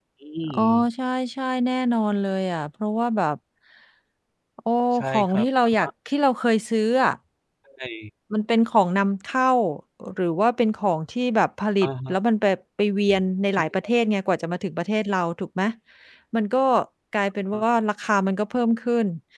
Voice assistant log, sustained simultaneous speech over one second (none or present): none